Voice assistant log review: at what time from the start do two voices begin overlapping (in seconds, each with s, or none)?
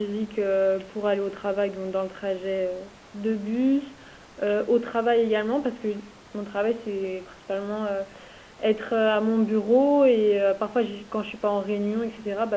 none